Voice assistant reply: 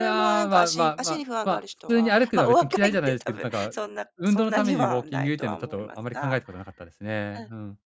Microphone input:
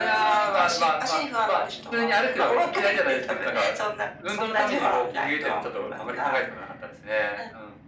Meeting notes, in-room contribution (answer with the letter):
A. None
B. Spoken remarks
A